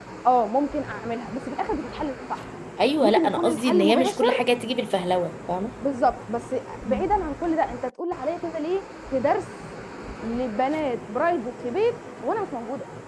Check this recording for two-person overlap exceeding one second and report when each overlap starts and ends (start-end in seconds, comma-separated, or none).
3.0-4.4